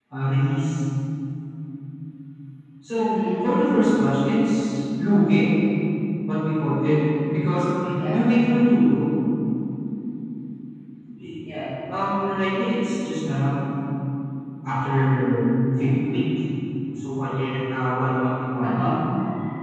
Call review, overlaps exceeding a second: none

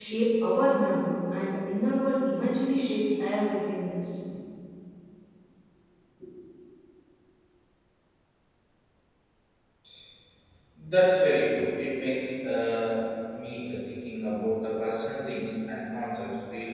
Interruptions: none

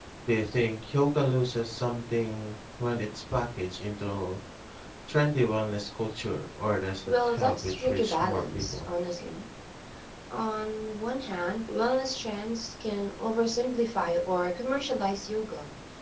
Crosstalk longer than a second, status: present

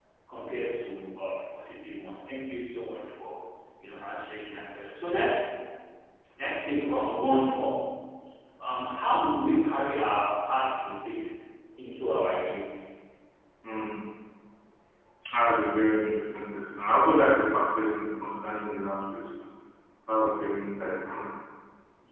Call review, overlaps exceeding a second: none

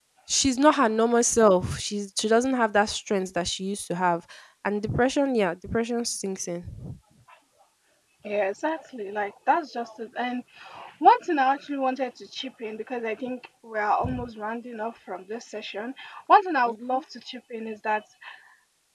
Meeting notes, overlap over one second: none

